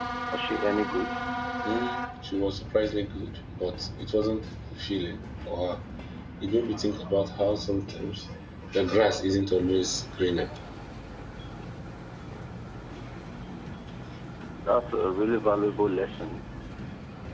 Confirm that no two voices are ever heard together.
Yes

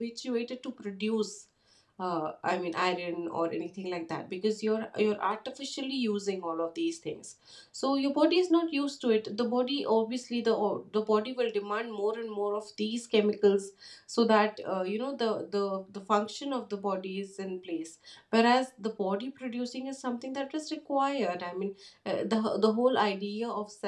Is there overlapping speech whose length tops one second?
No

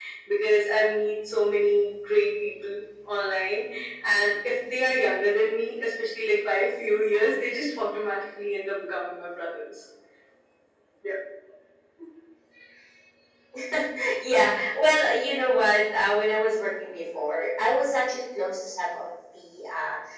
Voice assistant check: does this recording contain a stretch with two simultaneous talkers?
No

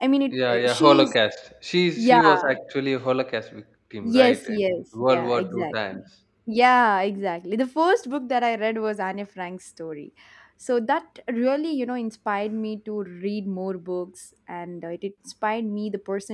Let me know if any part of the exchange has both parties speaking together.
Yes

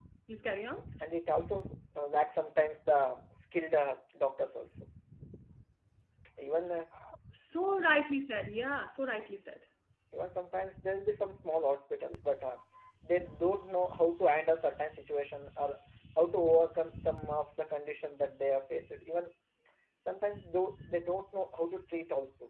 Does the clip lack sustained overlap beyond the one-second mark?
Yes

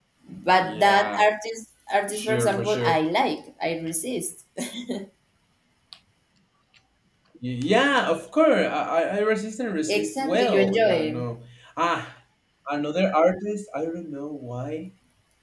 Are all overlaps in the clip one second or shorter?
No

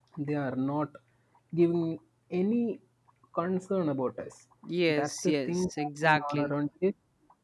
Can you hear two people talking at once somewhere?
Yes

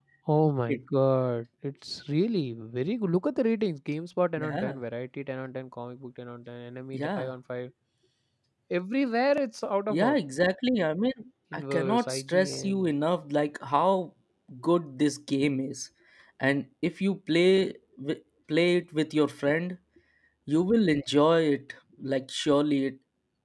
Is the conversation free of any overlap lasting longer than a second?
No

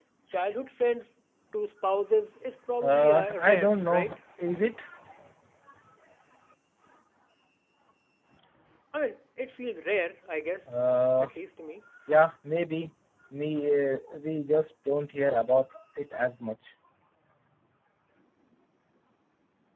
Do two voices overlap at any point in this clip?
Yes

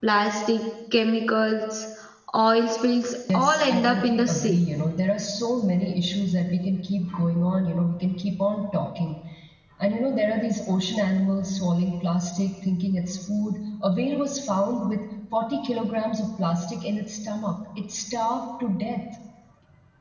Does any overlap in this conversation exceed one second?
Yes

